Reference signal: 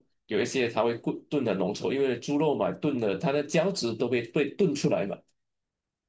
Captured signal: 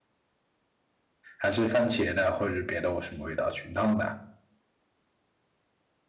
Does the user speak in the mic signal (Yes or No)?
Yes